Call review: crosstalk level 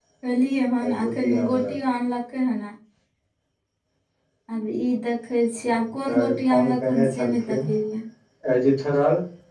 present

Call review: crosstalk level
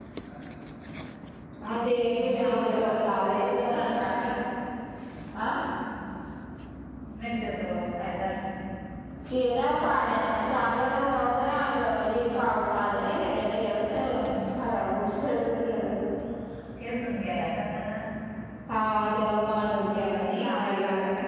present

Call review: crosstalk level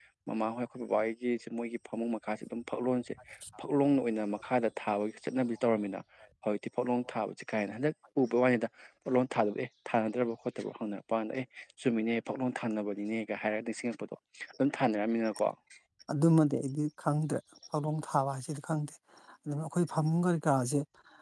none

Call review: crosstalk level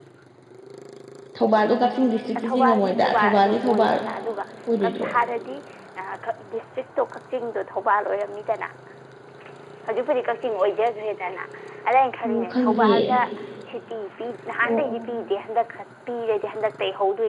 present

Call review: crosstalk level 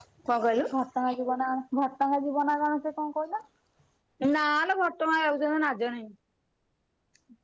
none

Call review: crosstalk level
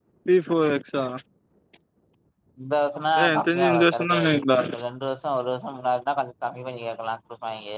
present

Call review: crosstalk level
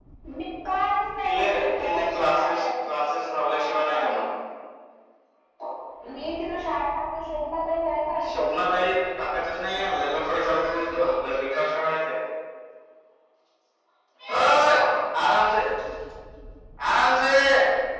present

